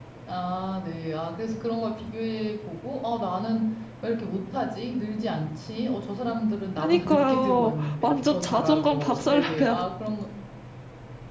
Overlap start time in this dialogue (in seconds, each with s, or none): 6.8 s